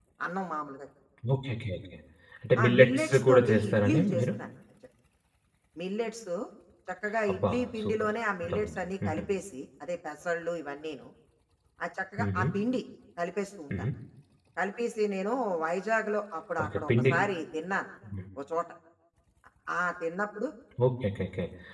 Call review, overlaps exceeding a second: present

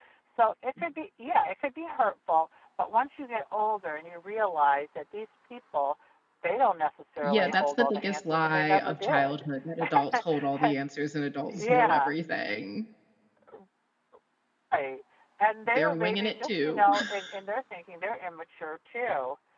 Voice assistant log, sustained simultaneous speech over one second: present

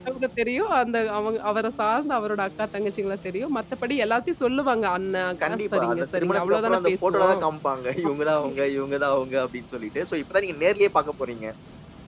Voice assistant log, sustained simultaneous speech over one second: present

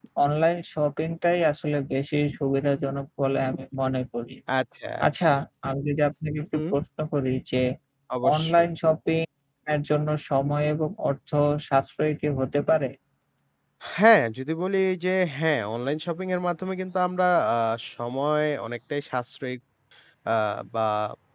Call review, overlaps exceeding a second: none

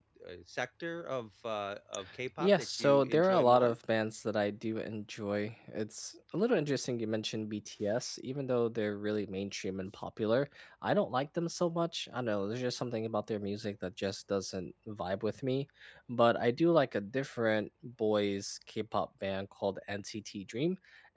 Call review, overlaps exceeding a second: present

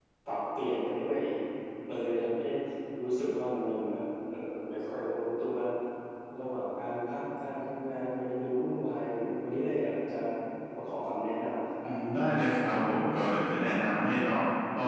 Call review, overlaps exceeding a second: none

